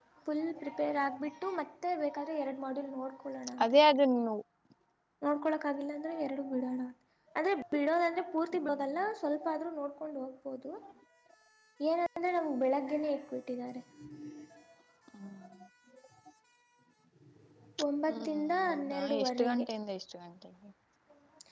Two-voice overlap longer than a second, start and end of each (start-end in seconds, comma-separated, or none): 18.1-19.7